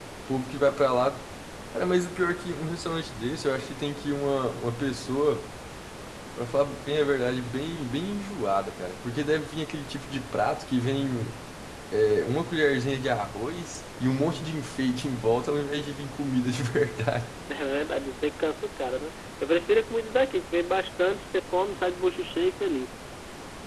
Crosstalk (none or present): none